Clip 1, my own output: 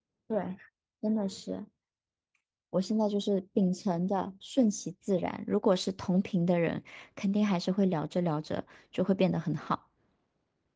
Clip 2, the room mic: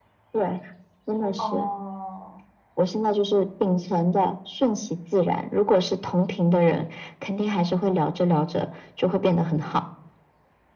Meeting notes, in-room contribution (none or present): present